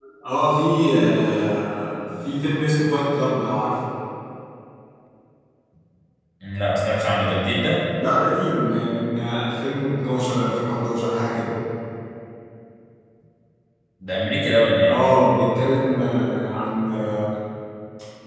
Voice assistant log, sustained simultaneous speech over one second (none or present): none